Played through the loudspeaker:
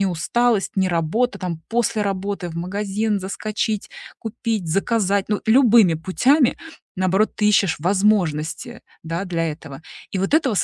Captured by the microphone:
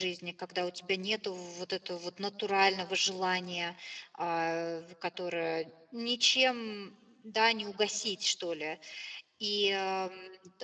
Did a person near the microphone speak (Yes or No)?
Yes